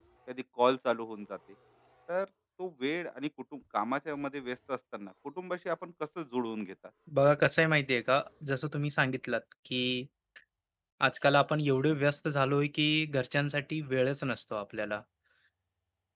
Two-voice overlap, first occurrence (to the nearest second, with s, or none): none